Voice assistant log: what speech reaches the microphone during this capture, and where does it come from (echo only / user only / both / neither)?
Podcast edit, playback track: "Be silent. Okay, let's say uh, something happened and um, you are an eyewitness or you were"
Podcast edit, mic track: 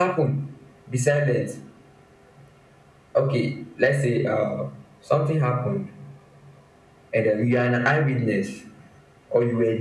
echo only